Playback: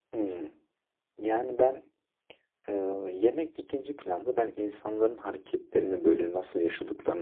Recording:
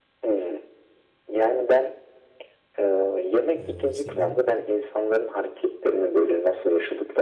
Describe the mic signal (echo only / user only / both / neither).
both